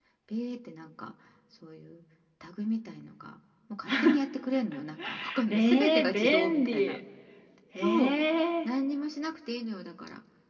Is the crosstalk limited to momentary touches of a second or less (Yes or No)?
No